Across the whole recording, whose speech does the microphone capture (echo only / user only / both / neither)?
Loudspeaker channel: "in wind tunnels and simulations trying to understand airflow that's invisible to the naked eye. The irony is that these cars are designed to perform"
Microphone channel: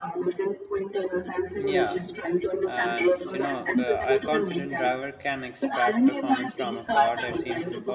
both